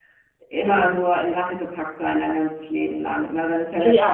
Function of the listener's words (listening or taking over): listening